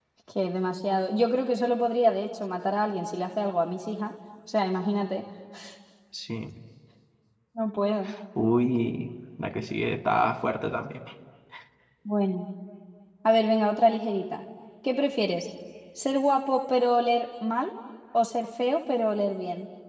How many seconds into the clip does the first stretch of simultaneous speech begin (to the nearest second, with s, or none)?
none